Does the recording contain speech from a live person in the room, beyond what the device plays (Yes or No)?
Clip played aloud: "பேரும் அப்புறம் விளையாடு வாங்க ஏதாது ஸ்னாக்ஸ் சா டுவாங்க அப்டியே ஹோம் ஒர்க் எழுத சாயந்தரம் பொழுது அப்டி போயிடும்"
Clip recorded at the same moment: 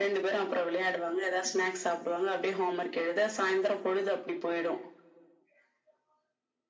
No